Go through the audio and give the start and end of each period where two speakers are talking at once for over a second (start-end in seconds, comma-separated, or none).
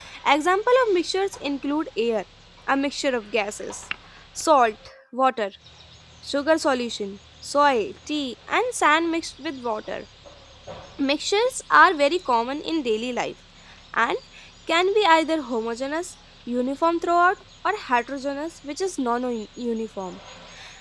none